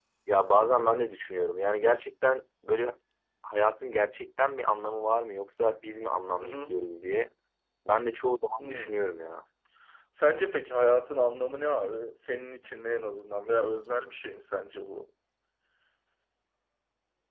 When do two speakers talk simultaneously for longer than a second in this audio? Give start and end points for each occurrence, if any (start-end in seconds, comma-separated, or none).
none